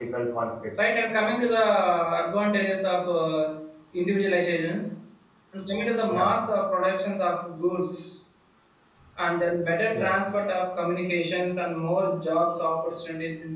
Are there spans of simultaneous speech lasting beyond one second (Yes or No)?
No